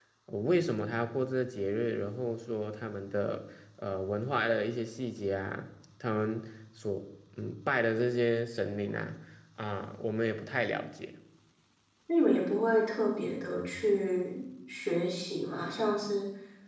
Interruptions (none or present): none